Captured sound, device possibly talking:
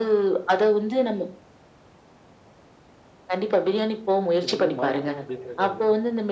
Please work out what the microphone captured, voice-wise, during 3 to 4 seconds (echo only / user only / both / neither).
echo only